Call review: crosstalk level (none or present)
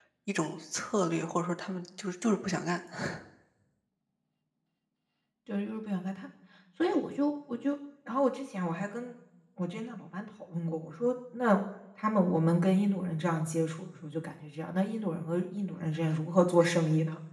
none